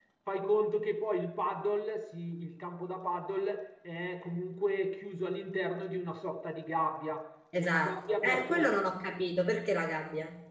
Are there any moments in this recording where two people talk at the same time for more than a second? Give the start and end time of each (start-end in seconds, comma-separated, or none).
7.5-8.8